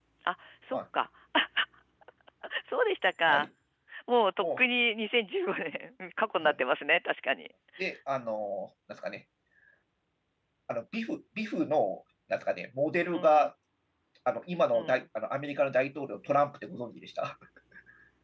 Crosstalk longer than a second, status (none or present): none